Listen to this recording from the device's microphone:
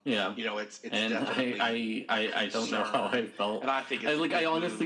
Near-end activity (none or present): none